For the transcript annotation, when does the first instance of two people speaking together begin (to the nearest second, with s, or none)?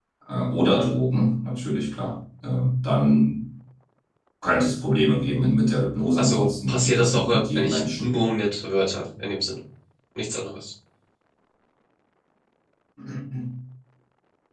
6 s